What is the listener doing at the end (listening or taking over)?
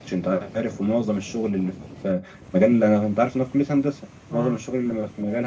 listening